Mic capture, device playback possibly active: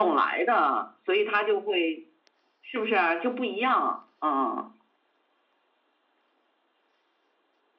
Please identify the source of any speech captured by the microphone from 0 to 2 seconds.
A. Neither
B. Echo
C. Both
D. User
B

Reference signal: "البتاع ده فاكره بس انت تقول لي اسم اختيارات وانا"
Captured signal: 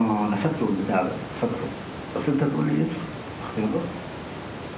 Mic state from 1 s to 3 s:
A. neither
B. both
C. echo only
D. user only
C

